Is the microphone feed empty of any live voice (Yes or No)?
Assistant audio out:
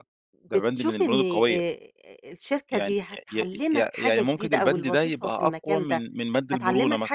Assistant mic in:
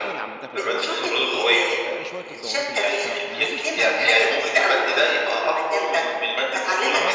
No